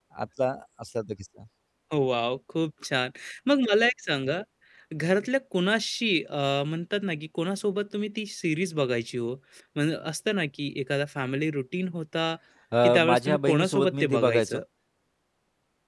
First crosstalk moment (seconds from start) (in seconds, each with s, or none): 12.8 s